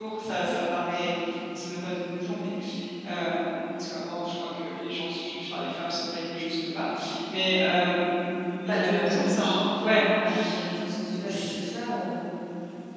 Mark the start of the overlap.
8.7 s

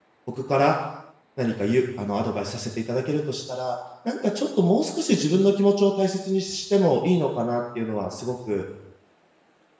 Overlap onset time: none

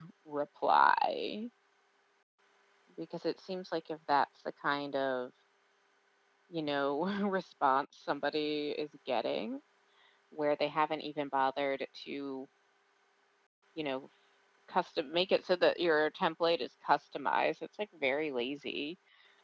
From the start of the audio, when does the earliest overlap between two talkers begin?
none

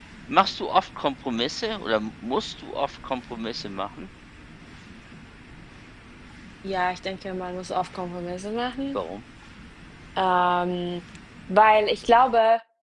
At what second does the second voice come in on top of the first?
none

